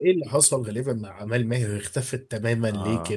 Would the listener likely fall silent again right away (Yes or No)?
No